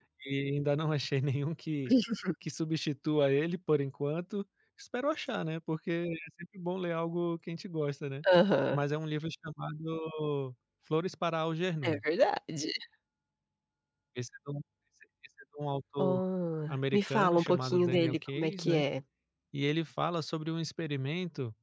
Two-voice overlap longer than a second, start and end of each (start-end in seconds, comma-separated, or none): 16.7-18.8